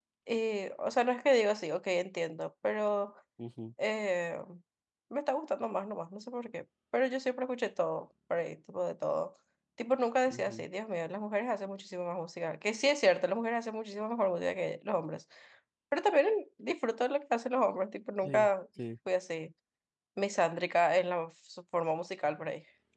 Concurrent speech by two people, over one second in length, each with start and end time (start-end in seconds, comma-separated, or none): none